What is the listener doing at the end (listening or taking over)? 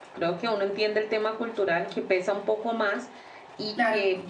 listening